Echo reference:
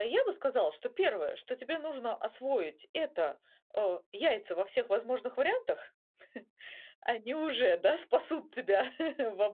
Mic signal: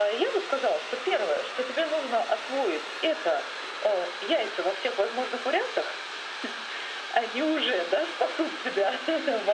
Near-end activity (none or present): none